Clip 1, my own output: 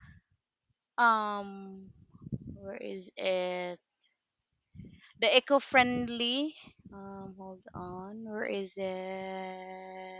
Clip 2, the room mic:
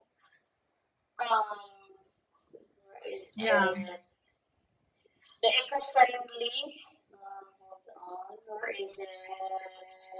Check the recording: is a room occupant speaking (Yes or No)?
Yes